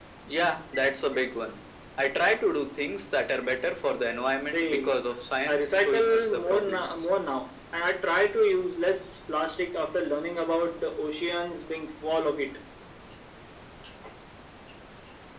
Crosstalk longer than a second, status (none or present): present